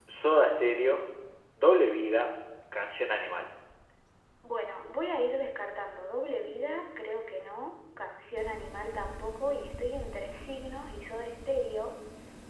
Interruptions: none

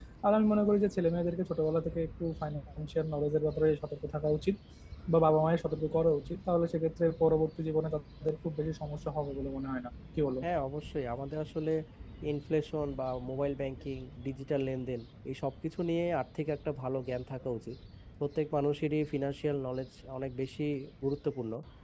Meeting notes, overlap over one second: none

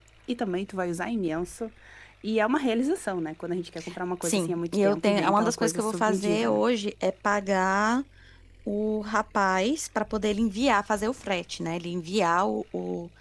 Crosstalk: present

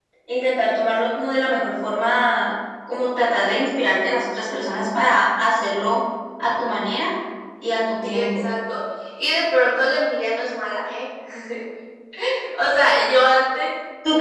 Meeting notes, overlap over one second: none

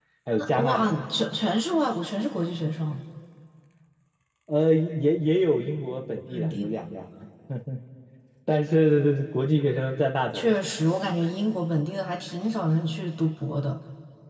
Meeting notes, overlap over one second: none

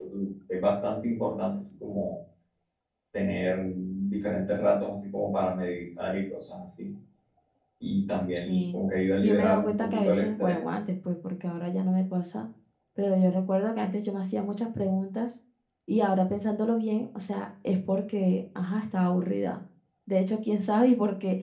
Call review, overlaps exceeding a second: present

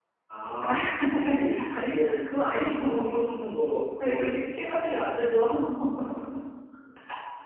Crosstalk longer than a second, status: present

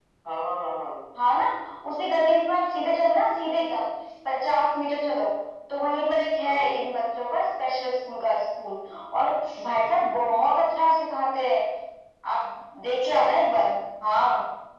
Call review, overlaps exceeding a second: none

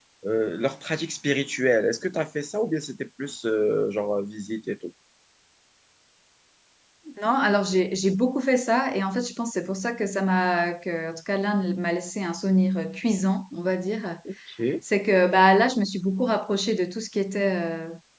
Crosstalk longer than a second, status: none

